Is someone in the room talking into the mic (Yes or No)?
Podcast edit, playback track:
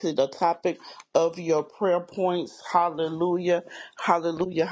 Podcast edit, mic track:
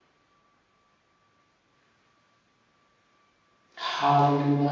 Yes